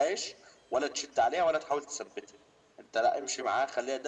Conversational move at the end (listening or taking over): listening